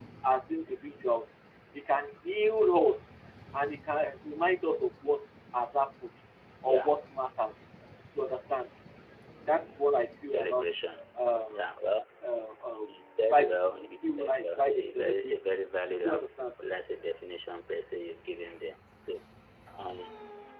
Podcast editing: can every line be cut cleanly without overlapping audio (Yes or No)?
No